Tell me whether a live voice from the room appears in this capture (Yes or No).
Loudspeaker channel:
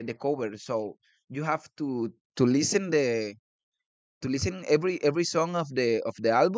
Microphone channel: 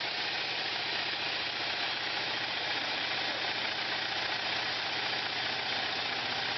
No